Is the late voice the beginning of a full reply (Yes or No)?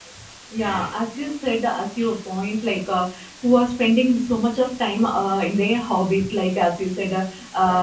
No